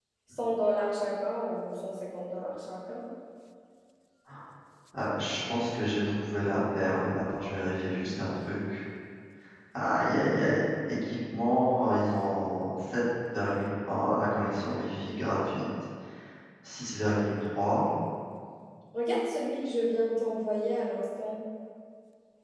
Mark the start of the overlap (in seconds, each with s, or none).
none